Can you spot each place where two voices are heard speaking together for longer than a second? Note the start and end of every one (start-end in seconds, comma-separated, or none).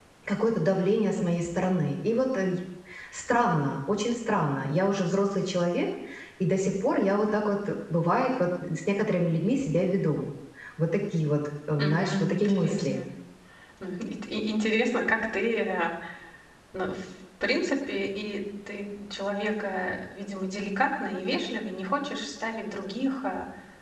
11.8-13.0